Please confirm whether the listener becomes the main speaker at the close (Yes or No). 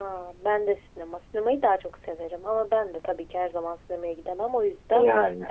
No